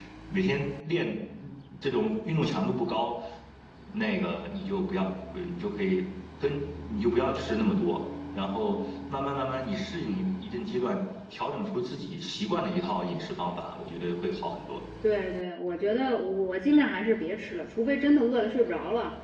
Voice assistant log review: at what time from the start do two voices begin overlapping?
none

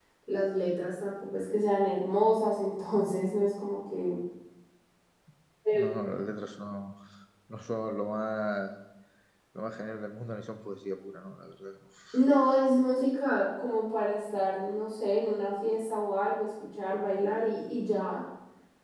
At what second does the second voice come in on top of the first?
none

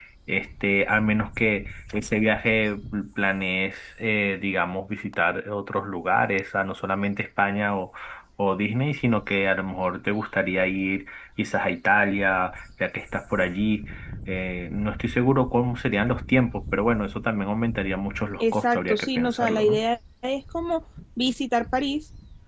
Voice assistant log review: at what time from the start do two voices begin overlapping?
18.4 s

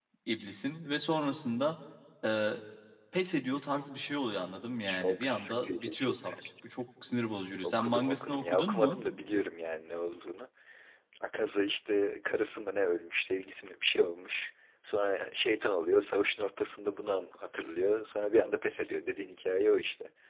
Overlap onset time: 4.9 s

